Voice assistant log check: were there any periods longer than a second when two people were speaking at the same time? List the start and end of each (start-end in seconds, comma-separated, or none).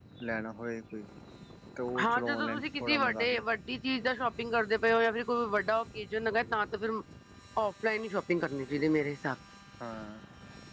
2.0-3.4